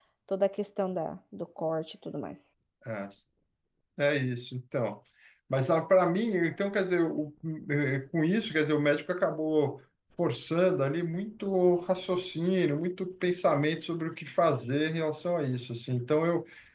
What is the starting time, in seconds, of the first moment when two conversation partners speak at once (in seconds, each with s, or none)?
none